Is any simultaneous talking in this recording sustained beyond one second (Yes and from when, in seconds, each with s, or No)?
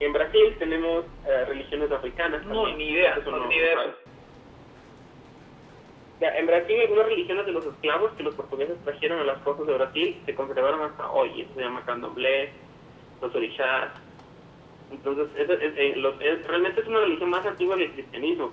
Yes, from 2.4 s